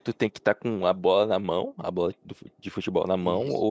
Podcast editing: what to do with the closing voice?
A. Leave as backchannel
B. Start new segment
B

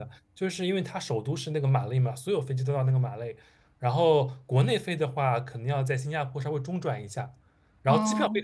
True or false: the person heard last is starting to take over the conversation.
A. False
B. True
A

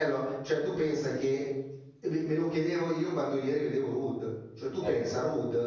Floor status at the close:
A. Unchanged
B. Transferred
A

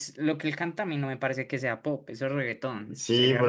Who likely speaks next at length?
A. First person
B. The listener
B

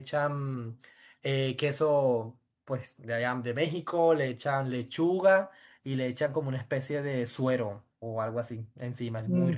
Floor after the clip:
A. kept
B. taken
B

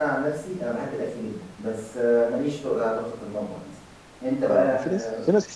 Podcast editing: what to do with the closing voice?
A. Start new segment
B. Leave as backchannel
A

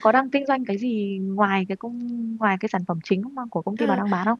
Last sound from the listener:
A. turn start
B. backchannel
A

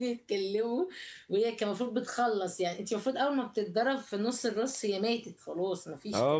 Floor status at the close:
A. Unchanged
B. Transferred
B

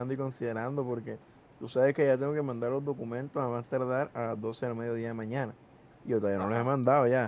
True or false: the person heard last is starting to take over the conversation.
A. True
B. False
B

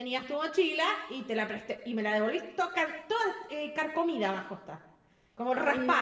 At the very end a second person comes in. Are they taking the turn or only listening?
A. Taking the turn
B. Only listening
A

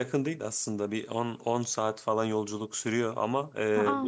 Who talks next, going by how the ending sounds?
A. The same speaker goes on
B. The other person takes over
A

